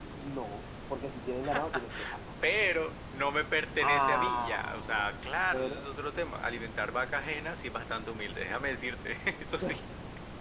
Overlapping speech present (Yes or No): Yes